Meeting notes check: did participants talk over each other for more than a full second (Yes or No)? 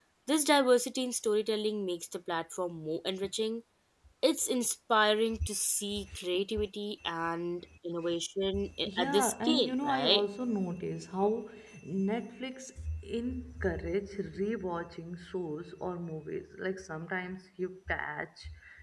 Yes